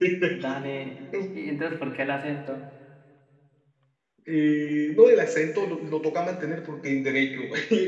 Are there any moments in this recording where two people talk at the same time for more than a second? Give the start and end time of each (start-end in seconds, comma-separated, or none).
none